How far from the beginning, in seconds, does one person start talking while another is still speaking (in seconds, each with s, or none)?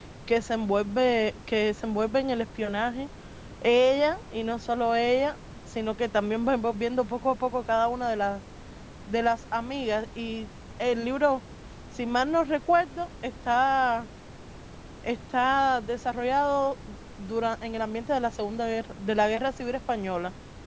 none